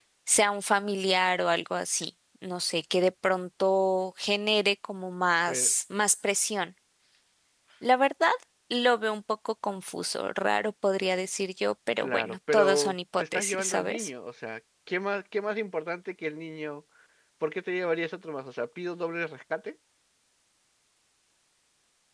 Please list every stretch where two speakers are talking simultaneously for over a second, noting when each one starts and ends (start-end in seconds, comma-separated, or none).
12.0-14.1